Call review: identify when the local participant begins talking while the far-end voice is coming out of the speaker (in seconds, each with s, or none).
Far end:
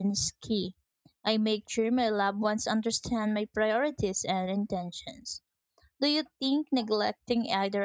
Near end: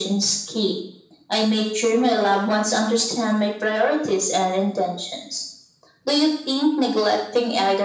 none